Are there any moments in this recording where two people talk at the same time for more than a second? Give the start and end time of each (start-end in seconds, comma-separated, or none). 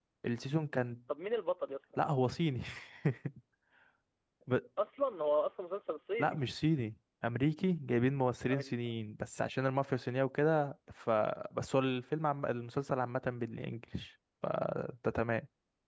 none